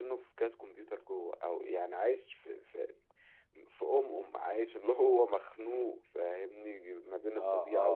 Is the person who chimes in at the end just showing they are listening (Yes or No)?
Yes